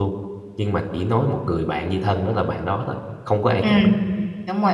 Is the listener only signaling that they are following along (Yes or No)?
No